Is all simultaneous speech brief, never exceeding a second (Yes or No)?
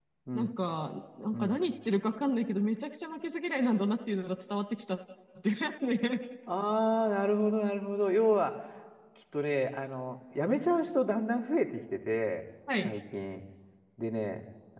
Yes